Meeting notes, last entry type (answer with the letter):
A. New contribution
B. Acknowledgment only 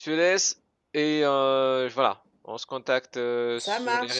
B